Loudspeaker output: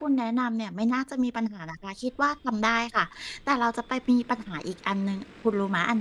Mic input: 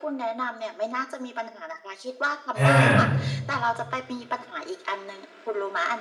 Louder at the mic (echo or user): user